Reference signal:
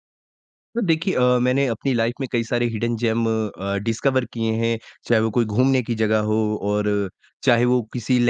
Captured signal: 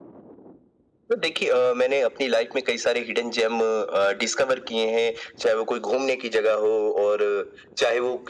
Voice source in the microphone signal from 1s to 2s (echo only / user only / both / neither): echo only